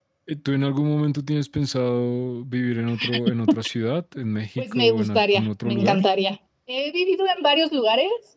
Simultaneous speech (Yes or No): Yes